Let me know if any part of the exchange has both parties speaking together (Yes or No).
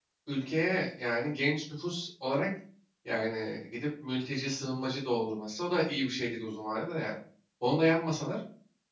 No